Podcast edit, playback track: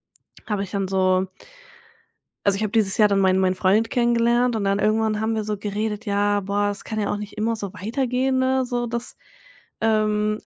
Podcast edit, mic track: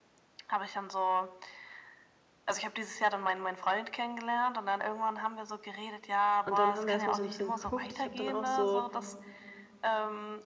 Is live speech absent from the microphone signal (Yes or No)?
No